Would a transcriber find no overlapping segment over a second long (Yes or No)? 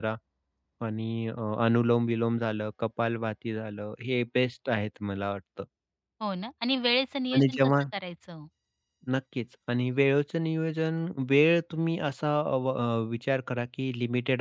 Yes